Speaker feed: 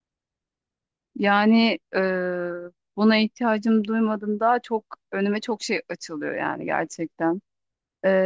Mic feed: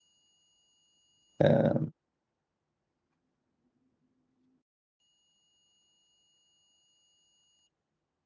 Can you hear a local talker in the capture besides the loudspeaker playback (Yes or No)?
Yes